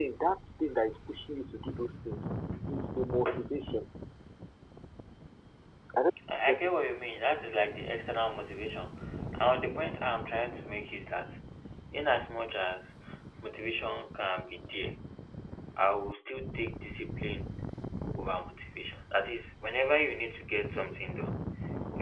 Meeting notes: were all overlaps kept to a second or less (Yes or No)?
Yes